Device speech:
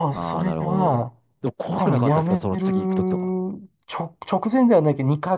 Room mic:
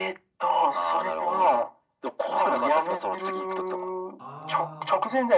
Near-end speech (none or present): present